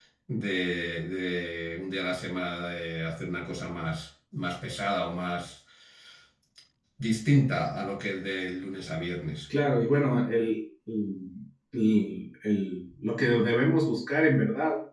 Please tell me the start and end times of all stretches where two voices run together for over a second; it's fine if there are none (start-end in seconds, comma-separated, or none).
none